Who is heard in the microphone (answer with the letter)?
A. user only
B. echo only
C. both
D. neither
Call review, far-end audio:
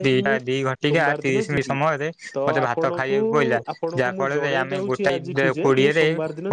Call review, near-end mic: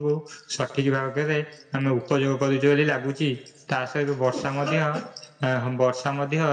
A